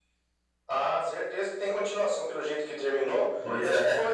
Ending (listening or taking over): listening